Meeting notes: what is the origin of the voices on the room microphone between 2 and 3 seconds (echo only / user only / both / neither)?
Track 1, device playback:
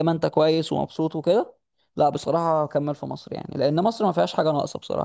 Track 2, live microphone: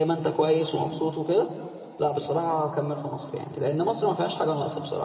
echo only